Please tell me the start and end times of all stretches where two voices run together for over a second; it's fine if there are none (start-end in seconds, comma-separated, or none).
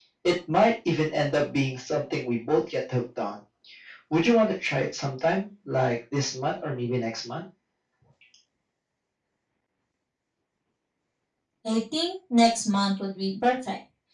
none